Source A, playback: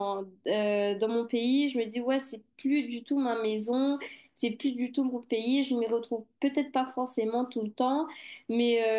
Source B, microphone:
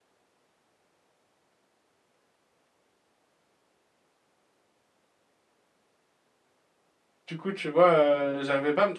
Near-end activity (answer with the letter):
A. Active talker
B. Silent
A